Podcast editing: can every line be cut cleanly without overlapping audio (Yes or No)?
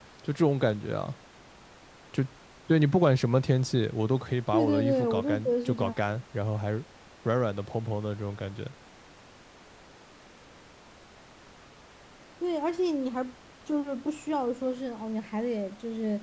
No